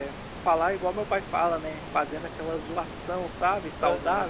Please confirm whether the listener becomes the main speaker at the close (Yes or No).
Yes